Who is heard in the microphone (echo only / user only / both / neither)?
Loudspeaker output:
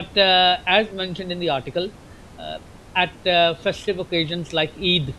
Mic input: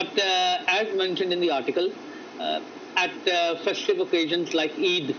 echo only